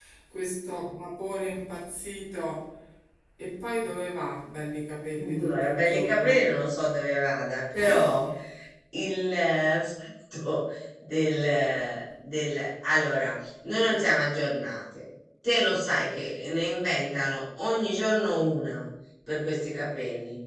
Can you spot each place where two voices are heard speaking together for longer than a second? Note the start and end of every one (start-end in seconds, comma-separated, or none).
5.2-6.4